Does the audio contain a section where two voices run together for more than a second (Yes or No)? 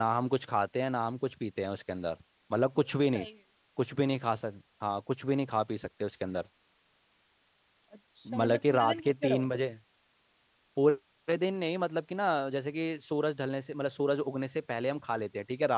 Yes